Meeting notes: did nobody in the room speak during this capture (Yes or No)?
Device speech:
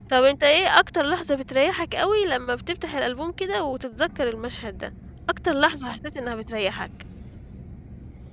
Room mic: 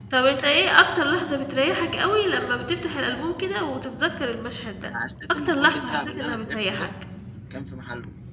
No